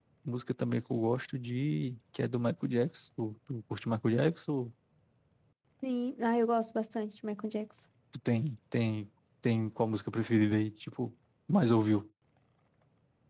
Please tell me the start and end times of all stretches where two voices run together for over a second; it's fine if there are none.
none

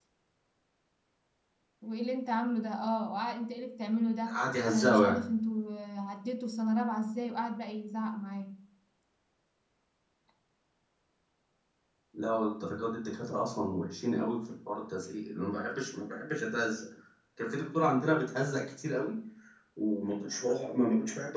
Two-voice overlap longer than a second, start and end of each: none

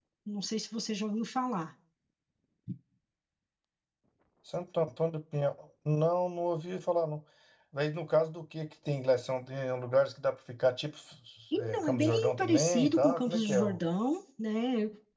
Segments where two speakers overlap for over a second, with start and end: 11.6-13.8

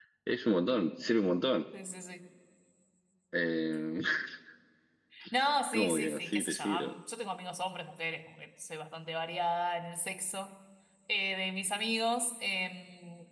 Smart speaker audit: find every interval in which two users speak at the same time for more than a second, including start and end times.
5.7-6.9

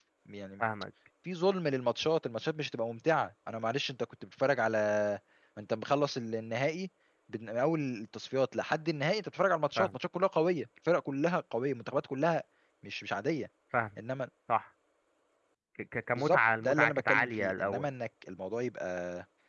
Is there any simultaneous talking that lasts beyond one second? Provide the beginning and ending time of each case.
16.2-17.9

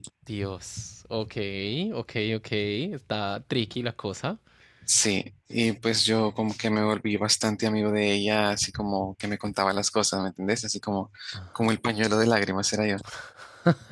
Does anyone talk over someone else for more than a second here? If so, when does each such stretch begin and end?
none

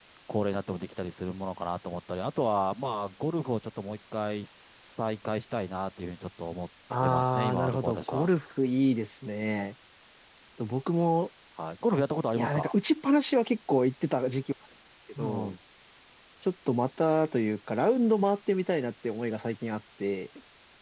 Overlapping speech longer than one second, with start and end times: 7.0-8.3

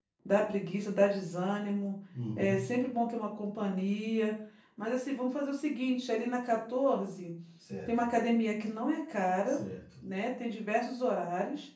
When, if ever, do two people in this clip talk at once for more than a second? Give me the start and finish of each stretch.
none

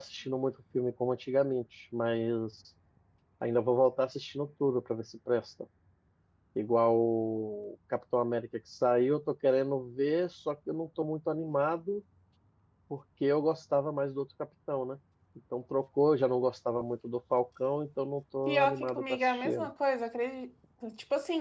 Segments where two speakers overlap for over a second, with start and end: 18.5-19.7

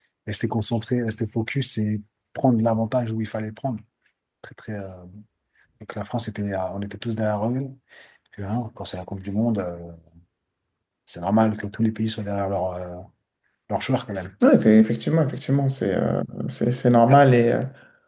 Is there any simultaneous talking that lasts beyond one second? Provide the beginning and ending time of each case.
none

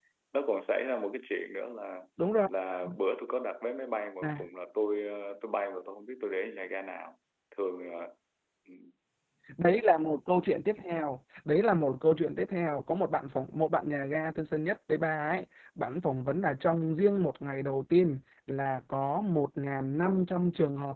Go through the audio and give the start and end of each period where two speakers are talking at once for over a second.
none

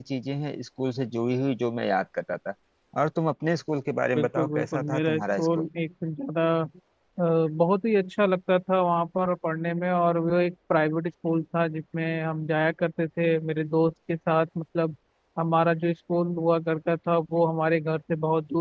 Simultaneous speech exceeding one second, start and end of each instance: 4.2-5.7

